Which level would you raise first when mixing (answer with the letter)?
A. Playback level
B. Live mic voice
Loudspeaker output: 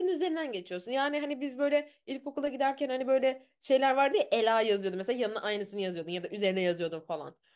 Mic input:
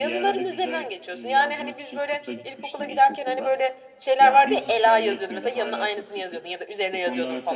B